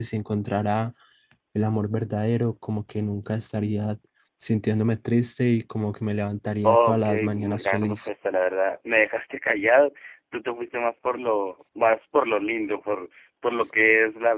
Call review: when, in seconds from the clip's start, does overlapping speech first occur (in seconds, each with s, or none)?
6.6 s